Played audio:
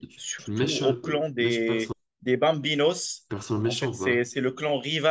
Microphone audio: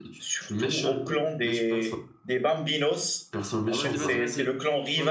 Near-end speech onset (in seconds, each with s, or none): 3.7 s